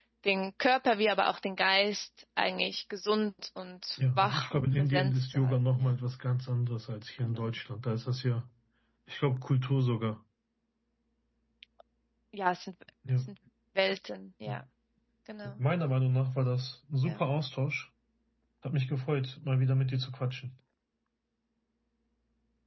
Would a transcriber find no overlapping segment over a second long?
No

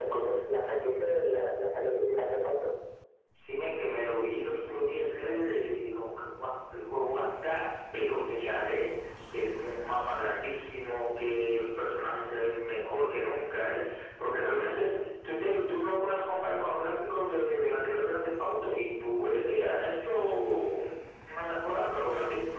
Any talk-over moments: No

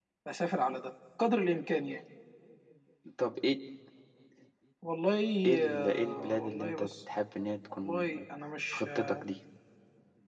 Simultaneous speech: Yes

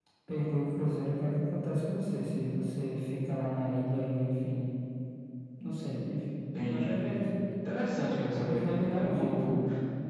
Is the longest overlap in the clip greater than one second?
Yes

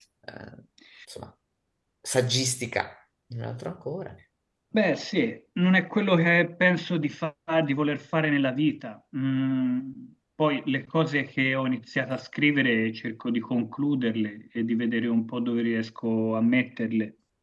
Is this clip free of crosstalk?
Yes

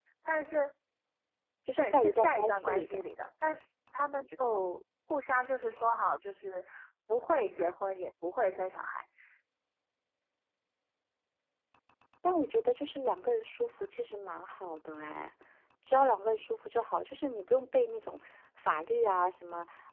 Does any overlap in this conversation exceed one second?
Yes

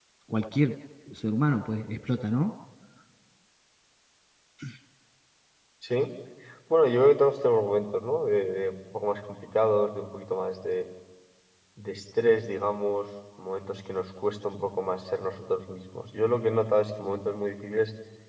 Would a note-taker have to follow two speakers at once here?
No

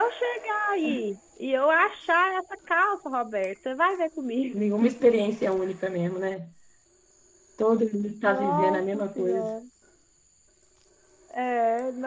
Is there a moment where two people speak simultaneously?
Yes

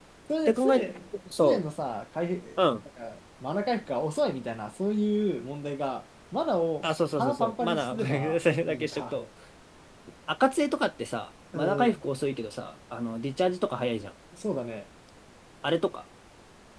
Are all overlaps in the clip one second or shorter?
No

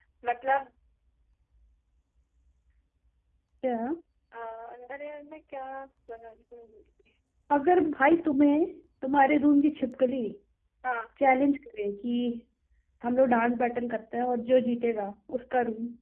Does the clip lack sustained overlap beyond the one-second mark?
Yes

